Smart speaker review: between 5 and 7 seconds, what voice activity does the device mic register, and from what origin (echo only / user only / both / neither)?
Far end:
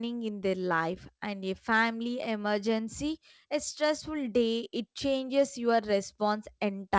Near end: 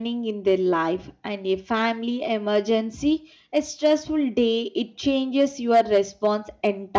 echo only